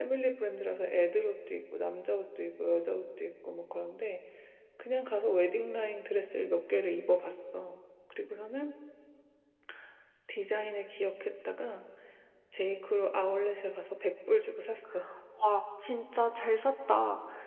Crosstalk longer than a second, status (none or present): none